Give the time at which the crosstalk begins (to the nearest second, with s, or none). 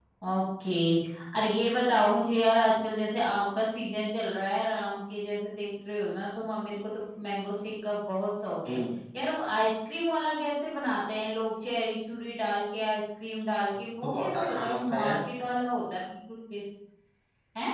14 s